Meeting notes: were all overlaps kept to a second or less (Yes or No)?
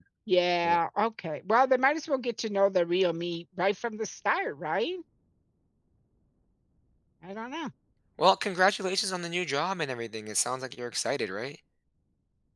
Yes